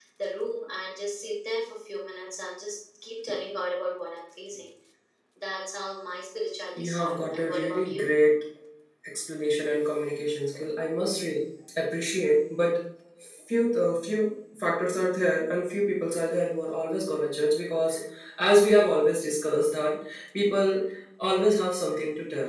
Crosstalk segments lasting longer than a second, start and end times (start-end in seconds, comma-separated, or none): 6.8-8.2